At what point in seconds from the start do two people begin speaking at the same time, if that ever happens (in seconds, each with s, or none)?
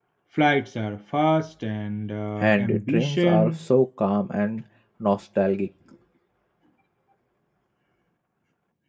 2.4 s